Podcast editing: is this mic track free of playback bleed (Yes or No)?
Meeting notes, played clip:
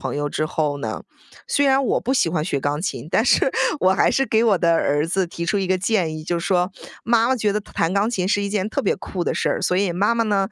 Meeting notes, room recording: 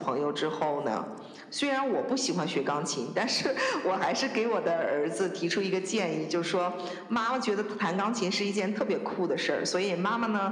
No